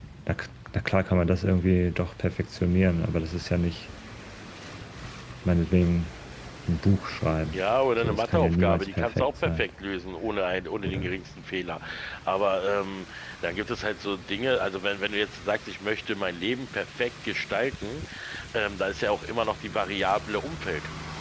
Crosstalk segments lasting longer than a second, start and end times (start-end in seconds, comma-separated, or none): 8.0-9.6